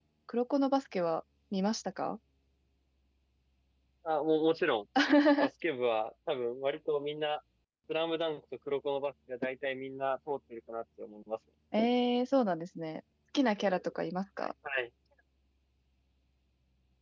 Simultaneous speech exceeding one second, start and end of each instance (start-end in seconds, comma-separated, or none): none